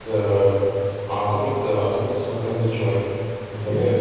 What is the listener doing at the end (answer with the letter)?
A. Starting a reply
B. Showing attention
B